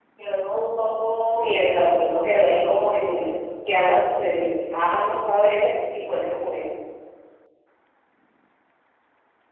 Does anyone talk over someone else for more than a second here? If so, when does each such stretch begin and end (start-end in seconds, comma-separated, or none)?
1.3-3.4